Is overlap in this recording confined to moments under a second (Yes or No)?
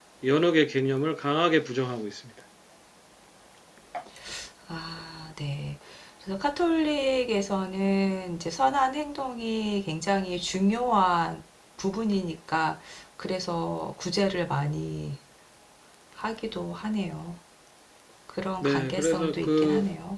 No